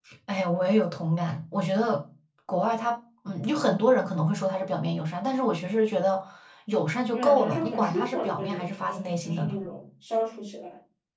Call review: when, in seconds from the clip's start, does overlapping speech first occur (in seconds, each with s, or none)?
7.1 s